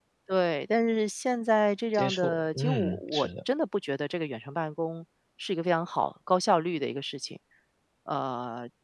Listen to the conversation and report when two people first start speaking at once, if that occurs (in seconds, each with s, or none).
1.9 s